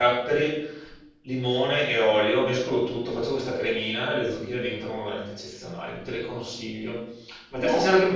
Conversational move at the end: listening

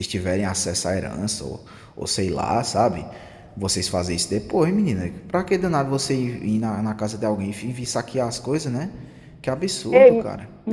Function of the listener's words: taking over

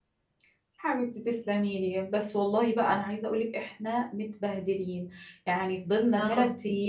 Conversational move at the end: listening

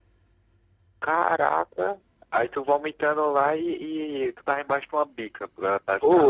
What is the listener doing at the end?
taking over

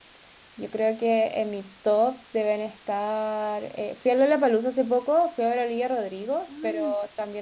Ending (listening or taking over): listening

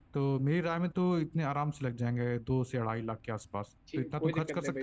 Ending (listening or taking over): taking over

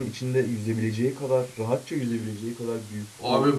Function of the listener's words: taking over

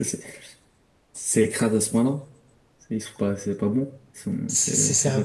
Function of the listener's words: taking over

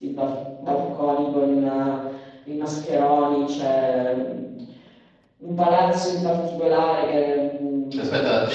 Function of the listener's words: taking over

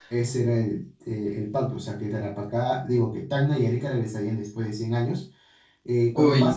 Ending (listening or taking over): listening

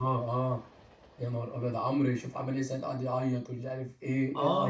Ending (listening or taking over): taking over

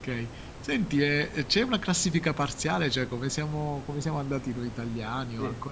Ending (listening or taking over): taking over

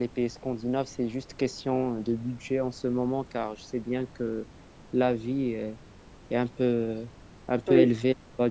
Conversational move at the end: listening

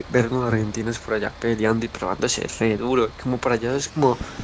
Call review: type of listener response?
listening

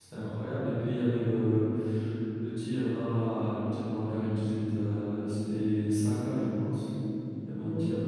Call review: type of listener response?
taking over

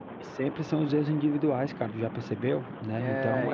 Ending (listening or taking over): taking over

